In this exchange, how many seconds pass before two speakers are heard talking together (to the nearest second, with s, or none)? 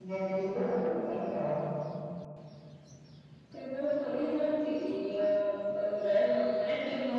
none